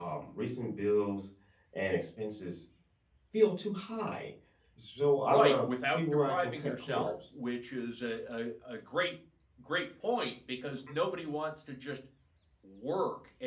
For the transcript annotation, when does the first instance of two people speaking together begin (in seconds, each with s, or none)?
5.2 s